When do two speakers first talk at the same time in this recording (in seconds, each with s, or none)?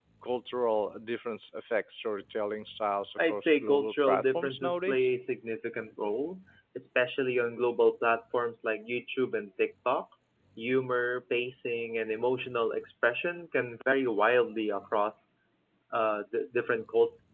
3.2 s